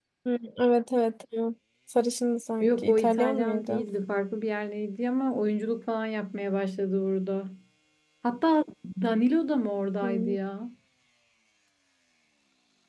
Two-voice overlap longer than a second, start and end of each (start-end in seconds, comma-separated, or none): 2.6-3.8